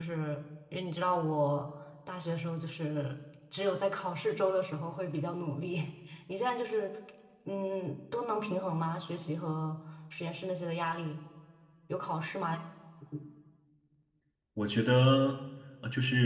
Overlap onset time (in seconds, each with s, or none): none